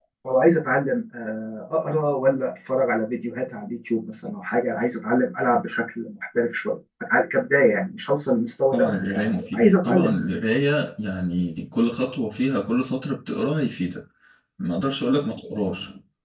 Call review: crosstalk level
present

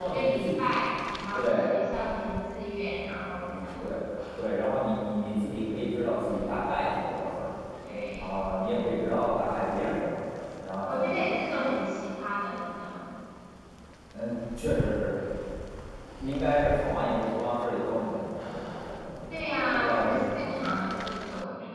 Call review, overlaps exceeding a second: present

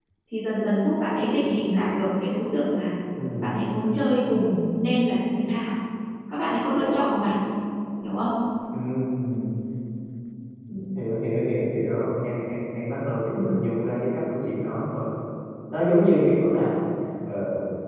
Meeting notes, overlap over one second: none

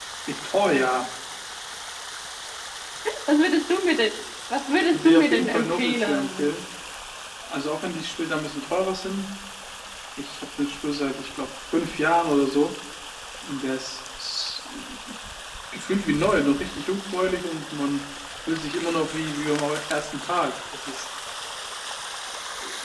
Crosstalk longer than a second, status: present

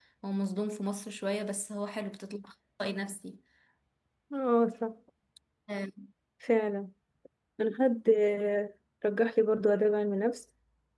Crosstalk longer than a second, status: none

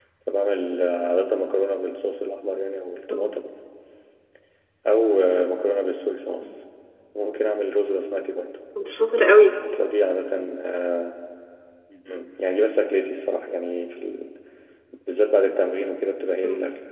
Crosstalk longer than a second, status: none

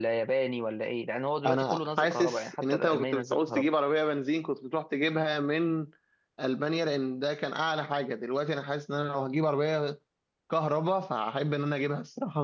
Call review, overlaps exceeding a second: present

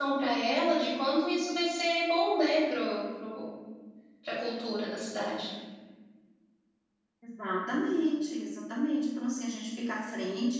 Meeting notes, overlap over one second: none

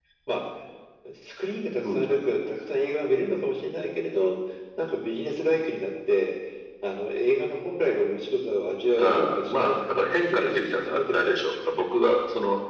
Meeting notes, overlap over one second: present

